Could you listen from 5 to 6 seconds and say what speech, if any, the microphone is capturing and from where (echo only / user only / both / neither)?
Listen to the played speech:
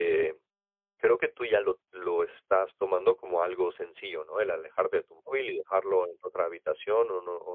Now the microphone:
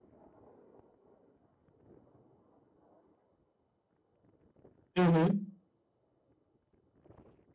user only